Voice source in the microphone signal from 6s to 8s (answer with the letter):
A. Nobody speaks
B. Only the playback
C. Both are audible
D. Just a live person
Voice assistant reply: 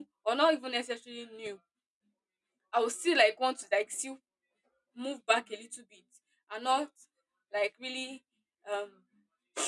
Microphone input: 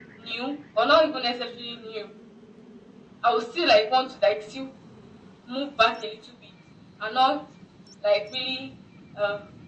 B